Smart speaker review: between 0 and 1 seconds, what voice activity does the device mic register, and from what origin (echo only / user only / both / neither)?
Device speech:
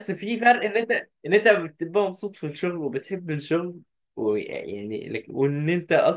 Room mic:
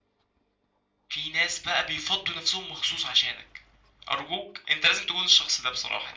neither